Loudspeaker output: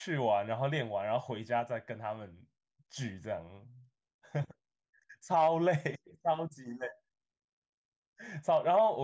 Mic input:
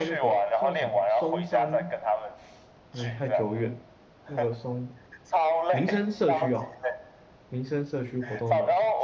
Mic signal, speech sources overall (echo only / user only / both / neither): both